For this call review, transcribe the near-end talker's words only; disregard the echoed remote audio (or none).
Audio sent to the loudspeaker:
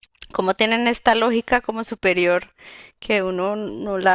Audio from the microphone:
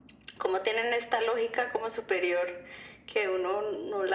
none